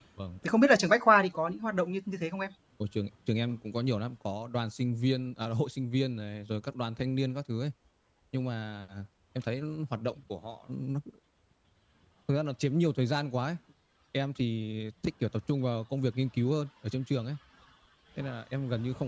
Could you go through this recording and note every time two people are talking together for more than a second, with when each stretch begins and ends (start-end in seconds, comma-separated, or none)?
none